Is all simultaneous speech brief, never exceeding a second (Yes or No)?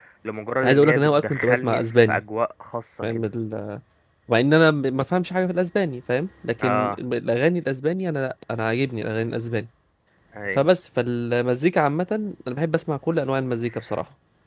No